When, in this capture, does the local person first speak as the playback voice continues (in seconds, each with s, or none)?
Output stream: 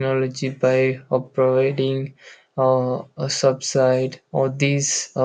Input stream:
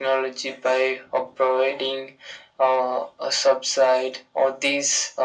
none